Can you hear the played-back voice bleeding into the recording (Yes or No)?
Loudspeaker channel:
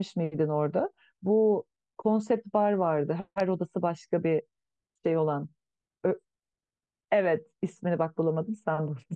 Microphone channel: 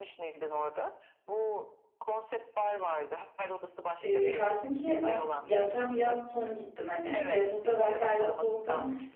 Yes